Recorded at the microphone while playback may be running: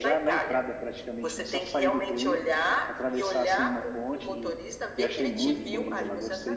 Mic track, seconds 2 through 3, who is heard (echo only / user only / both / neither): both